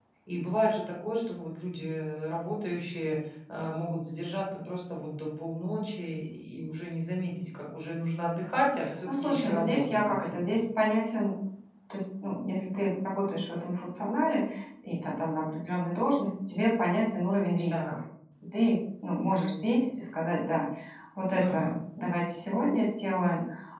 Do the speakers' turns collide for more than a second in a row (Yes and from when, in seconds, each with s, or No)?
Yes, from 9.1 s